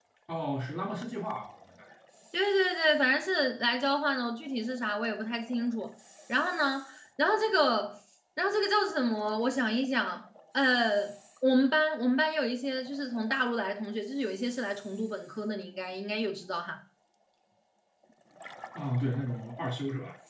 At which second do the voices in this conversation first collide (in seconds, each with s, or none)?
none